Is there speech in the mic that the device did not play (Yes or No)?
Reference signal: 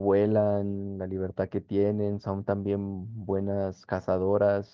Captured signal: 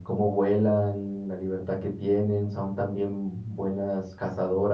No